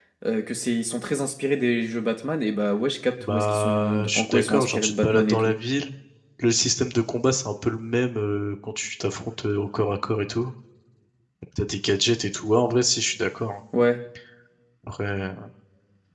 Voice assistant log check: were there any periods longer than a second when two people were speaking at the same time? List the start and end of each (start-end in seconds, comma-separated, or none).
3.2-5.5